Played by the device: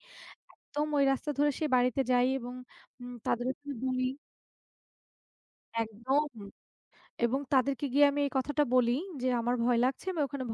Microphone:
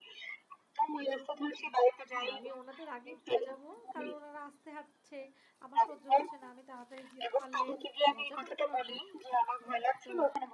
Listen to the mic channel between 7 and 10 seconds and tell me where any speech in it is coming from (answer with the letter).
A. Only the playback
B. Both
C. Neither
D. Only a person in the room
B